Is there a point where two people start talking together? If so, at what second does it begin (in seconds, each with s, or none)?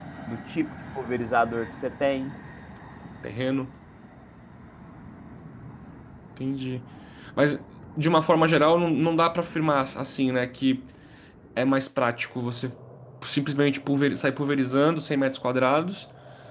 none